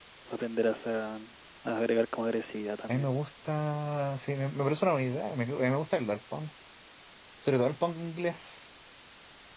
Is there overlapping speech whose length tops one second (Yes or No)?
No